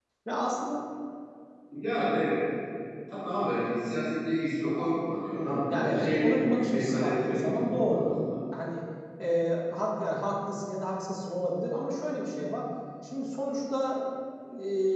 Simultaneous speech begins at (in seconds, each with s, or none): 5.3 s